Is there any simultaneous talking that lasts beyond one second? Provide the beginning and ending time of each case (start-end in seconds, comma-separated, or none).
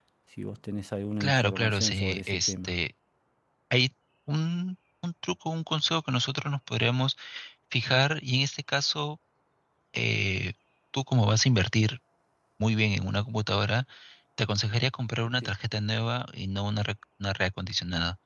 1.2-2.7